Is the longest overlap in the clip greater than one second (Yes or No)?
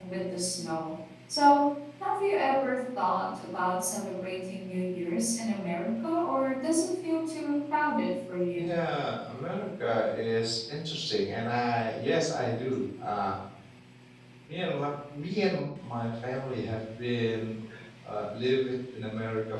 No